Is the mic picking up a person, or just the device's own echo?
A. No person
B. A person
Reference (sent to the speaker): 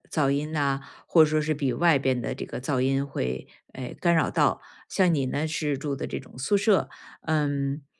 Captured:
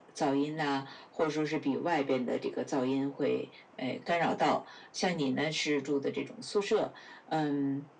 A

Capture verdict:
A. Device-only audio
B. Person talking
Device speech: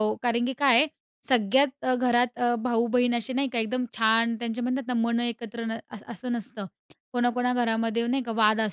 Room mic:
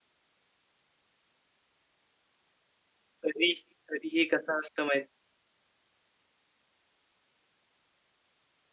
B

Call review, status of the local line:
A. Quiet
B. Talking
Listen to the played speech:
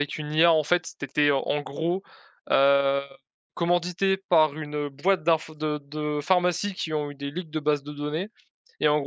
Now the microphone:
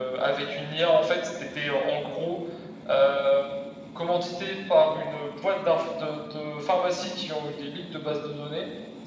A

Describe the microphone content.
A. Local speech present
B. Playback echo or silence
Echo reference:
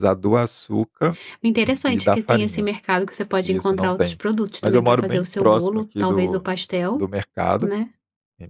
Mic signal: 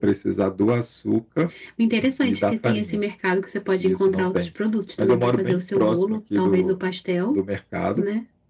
B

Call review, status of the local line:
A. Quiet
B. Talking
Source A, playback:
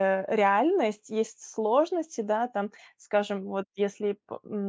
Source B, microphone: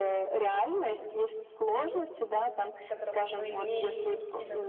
B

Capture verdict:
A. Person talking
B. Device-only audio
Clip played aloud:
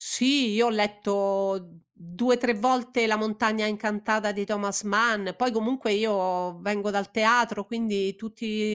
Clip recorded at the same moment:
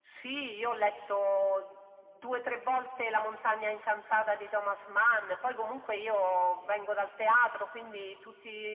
B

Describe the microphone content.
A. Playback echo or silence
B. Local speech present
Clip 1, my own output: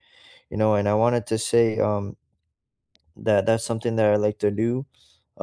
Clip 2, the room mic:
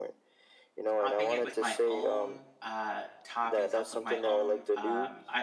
B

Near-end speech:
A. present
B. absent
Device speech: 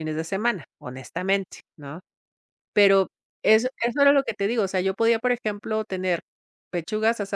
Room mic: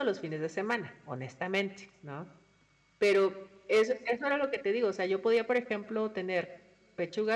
B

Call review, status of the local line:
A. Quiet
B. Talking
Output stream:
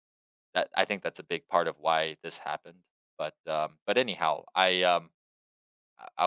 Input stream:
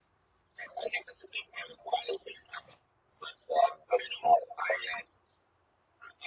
A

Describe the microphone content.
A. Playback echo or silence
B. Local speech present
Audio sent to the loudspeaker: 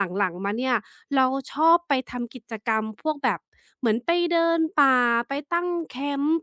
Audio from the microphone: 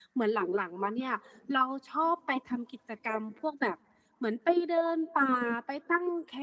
A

